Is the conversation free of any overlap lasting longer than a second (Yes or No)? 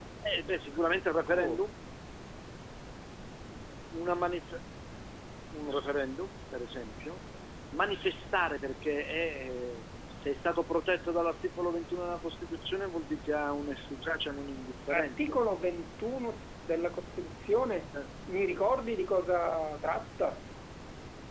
Yes